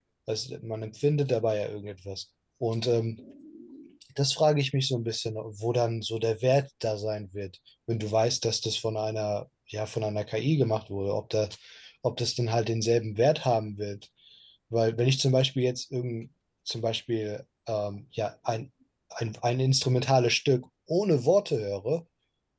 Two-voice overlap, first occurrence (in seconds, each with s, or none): none